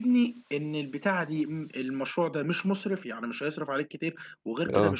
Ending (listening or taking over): listening